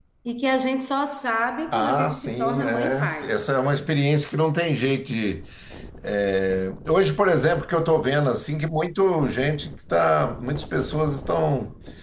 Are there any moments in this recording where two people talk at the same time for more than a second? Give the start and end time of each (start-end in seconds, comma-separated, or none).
1.7-3.4